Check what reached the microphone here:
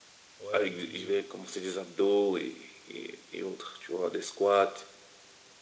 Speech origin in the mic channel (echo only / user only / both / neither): both